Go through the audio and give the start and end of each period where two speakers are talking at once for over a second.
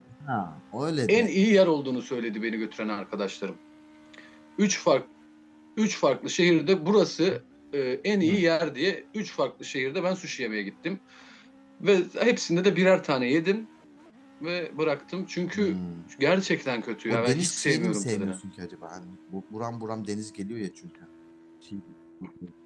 17.1-18.4

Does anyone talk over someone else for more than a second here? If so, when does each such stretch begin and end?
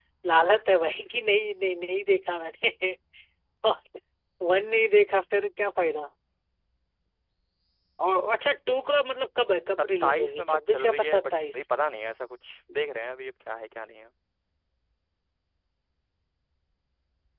10.0-11.6

